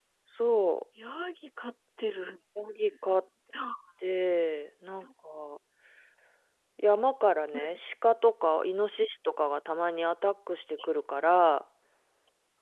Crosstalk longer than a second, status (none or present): none